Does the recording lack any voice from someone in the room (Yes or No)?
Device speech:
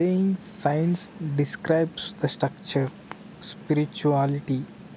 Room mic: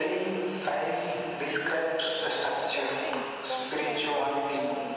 No